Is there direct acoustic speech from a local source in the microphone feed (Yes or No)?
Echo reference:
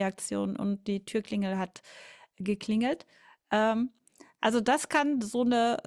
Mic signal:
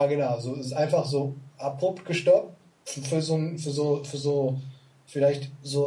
Yes